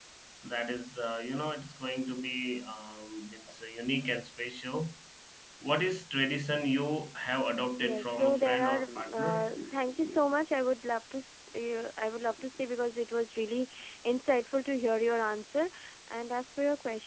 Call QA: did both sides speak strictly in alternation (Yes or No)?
No